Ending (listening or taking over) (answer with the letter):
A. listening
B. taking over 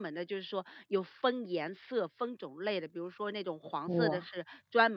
A